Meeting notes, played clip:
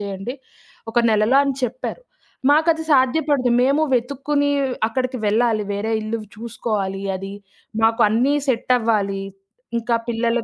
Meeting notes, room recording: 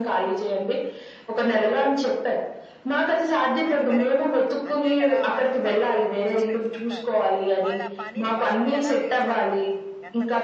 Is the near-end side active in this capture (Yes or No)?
Yes